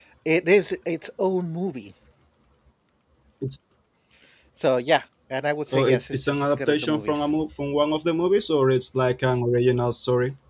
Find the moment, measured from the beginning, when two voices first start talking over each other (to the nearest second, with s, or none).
6 s